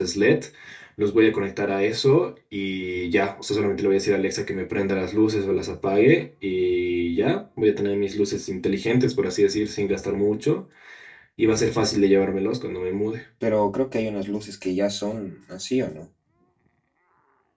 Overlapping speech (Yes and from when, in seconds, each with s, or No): No